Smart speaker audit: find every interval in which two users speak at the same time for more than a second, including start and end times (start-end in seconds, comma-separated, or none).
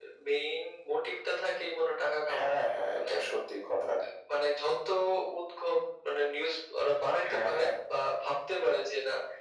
none